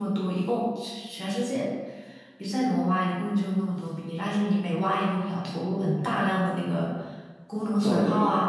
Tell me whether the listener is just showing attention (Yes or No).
Yes